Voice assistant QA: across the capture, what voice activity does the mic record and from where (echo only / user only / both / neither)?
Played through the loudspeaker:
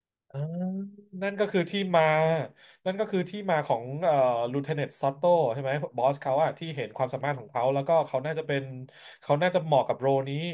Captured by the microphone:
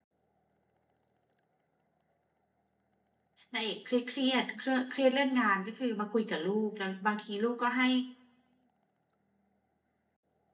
user only